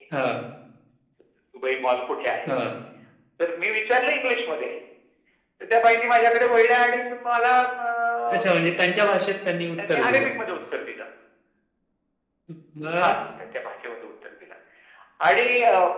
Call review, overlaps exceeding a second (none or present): none